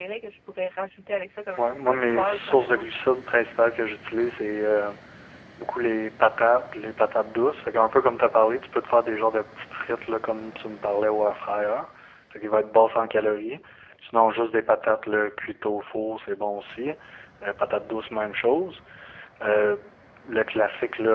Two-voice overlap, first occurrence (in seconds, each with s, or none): 1.6 s